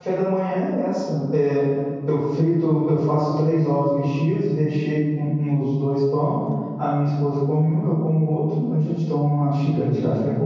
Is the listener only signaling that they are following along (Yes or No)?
Yes